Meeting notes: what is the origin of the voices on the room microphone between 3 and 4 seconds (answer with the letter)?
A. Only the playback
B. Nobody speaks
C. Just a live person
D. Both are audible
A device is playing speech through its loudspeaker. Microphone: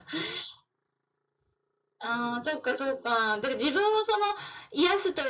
A